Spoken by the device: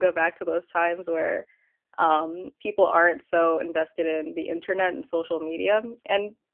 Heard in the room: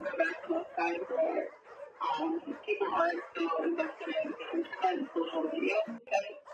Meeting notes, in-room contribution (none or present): none